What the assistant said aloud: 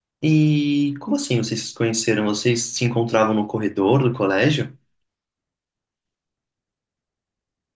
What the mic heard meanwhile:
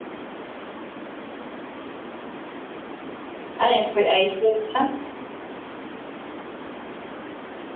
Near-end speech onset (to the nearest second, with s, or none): 4 s